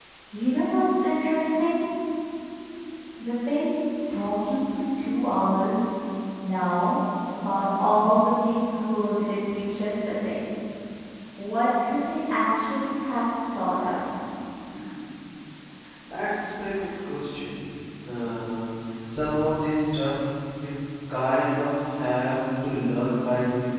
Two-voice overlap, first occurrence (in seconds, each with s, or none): none